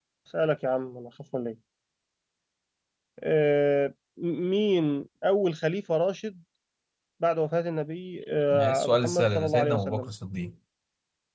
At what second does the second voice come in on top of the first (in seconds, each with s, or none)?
8.5 s